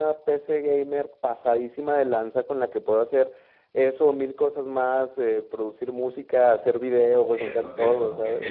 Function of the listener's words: taking over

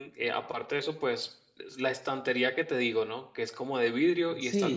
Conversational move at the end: taking over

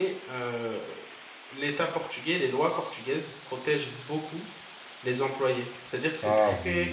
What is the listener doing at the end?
listening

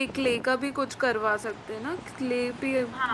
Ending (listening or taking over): taking over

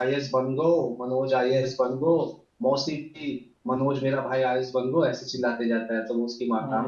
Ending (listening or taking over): listening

